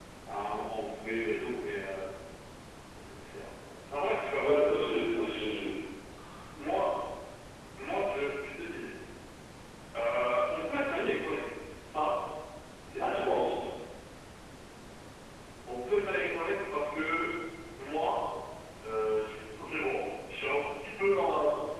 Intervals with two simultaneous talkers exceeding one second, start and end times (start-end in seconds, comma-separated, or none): 4.4-5.7